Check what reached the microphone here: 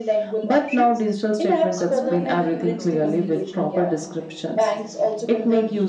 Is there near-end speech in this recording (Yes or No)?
Yes